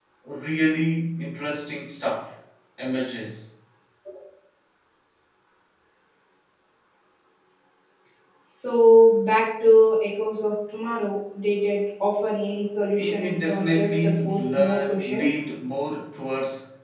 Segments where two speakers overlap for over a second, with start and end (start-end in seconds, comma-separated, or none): 13.0-15.3